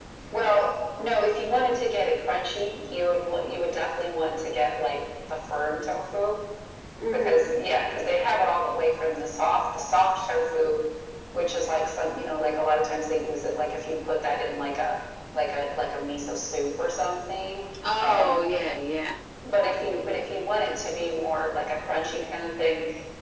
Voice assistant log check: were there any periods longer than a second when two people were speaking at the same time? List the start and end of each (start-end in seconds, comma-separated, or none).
none